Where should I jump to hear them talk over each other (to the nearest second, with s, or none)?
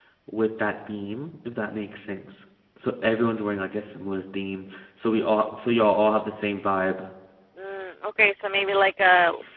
none